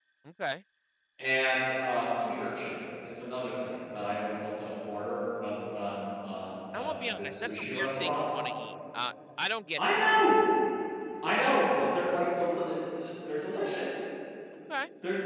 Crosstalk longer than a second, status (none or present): present